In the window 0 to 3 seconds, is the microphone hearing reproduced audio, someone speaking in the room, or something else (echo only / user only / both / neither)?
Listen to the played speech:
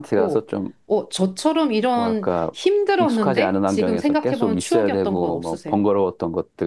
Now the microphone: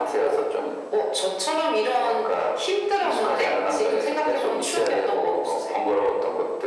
echo only